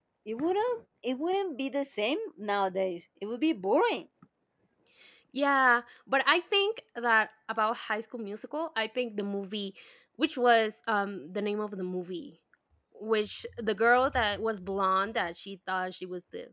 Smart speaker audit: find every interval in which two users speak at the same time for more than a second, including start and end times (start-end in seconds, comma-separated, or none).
none